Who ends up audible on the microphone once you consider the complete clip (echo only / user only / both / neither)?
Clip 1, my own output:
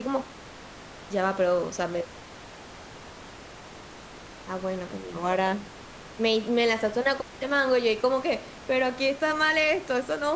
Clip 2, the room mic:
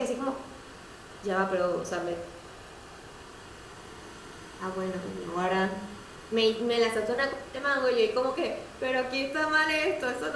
echo only